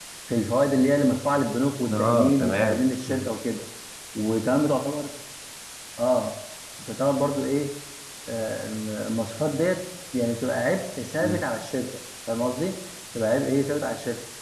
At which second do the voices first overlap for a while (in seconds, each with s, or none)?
1.9 s